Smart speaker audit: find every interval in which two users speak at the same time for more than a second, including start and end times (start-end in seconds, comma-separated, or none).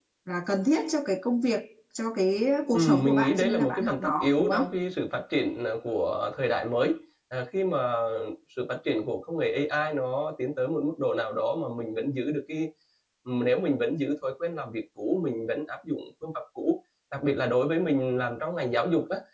2.7-4.6